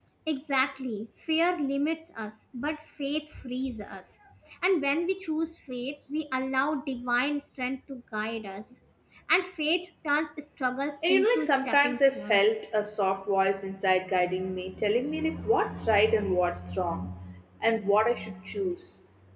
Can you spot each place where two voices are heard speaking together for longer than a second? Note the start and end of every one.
11.1-12.4

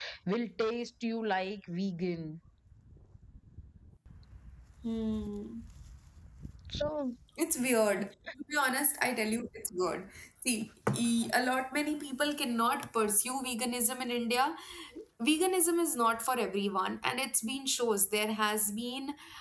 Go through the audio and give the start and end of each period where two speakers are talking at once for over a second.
none

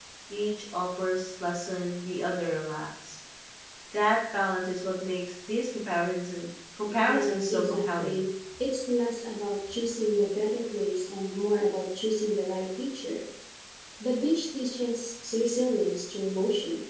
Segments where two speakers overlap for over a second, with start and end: 7.0-8.2

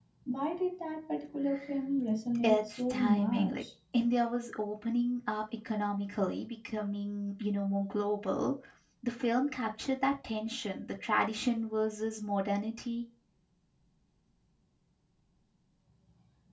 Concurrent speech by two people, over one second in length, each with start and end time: 2.4-3.6

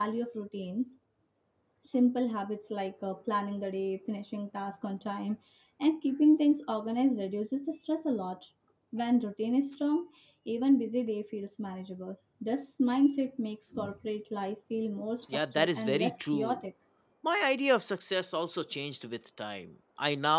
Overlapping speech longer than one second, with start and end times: 15.3-16.6

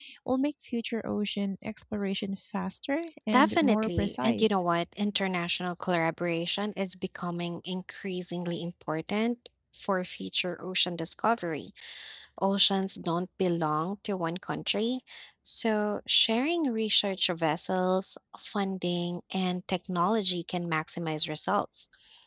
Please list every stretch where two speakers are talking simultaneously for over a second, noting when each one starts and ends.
3.3-4.6

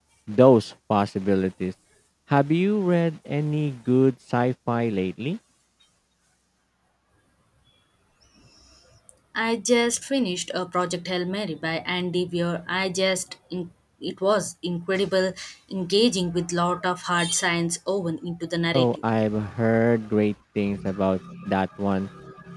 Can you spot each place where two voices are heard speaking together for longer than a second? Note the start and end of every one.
none

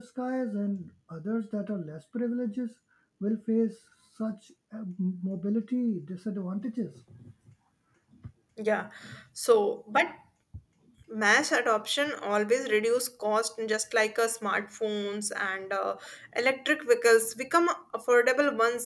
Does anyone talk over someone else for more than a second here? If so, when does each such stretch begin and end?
none

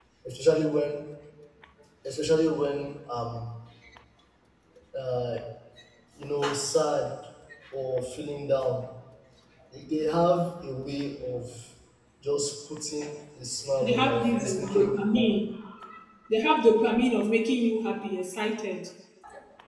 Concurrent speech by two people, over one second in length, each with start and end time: 13.8-15.3

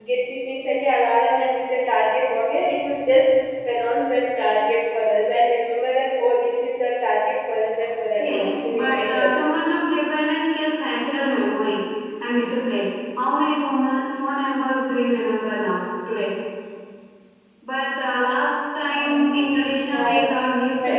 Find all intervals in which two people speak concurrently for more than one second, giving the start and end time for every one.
8.2-9.4

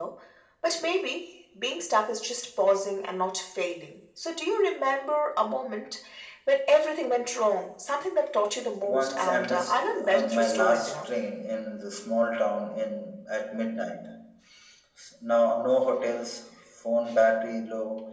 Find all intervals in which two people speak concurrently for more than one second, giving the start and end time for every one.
8.8-11.1

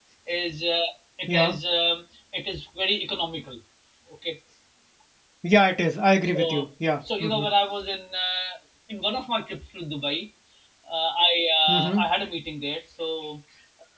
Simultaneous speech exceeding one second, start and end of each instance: none

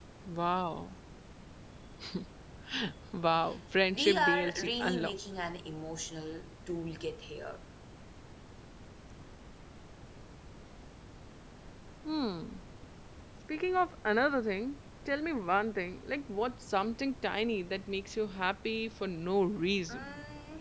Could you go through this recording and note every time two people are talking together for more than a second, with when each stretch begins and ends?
3.9-5.2

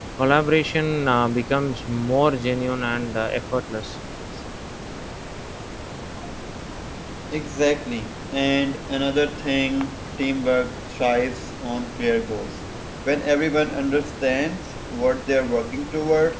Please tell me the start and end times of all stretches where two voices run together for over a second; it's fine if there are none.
none

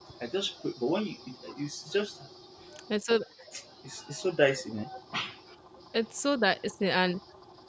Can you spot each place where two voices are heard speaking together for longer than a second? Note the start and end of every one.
none

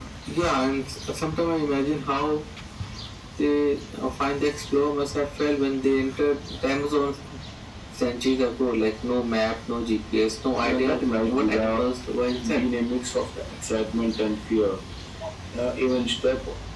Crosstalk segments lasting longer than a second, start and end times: 10.6-11.8

